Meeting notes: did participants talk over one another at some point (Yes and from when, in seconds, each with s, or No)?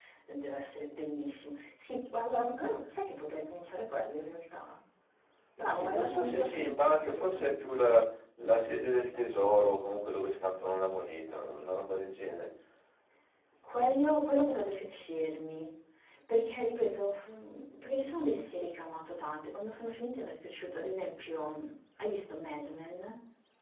Yes, from 5.7 s